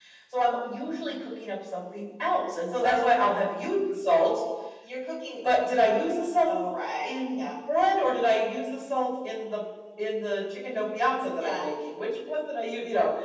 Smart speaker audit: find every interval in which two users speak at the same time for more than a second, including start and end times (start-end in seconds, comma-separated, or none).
none